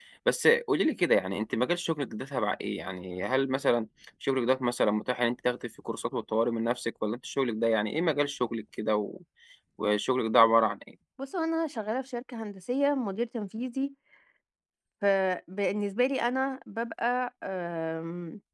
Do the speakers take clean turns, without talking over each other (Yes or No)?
Yes